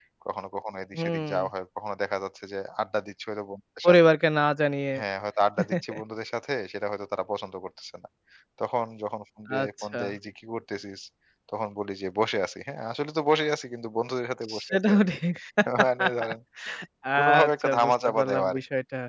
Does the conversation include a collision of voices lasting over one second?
Yes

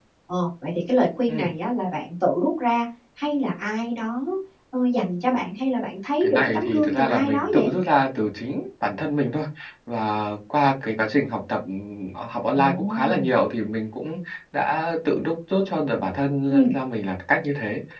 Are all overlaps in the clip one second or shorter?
No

